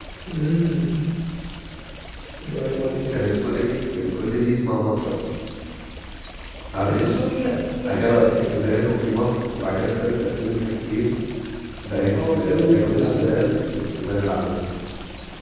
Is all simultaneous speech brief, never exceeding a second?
No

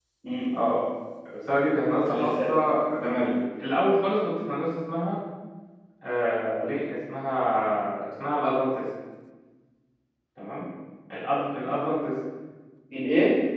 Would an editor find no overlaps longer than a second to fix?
Yes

